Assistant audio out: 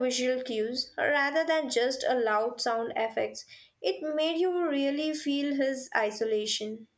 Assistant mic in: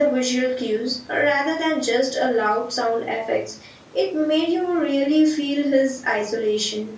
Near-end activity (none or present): none